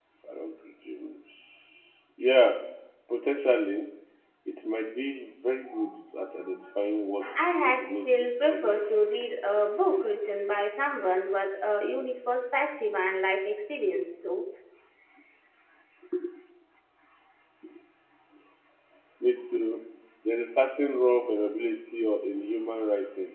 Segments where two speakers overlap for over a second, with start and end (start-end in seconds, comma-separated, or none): 7.6-8.9